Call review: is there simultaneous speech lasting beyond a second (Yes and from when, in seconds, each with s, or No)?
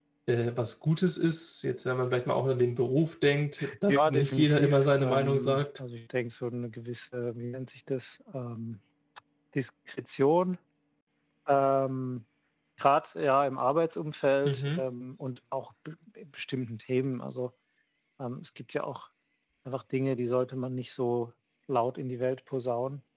Yes, from 3.9 s